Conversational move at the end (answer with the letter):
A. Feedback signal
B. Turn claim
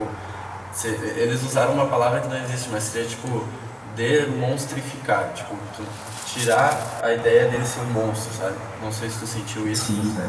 B